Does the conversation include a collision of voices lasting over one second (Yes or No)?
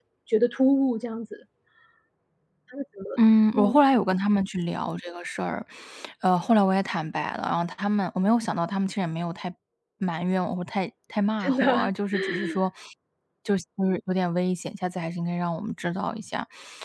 No